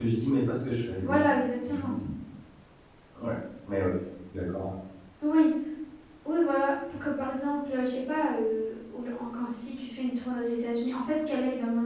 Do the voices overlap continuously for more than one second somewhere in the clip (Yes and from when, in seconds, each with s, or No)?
No